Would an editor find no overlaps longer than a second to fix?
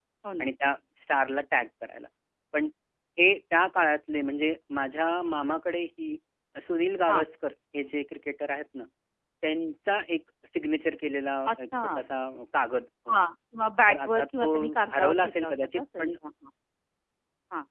No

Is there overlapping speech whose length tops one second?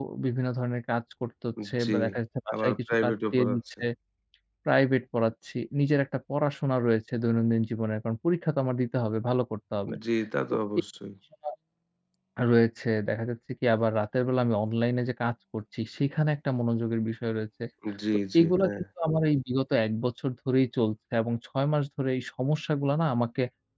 Yes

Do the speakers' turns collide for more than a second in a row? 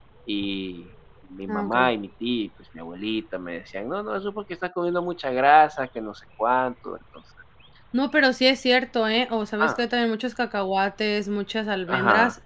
No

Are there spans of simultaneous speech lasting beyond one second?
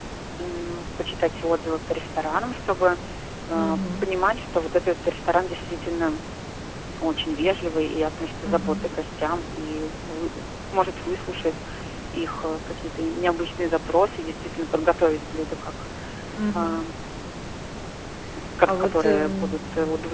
Yes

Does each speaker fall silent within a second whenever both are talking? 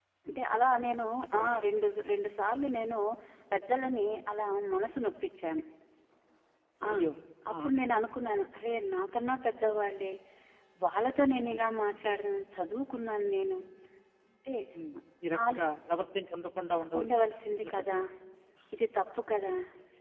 Yes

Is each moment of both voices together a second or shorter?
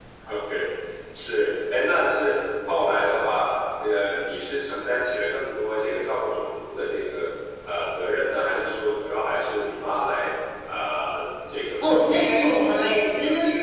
No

